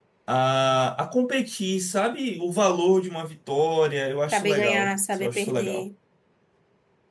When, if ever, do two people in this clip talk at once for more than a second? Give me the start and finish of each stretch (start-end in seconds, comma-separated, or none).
4.3-5.8